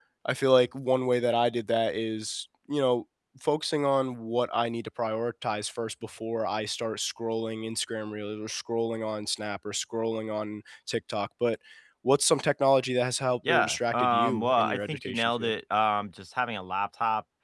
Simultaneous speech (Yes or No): Yes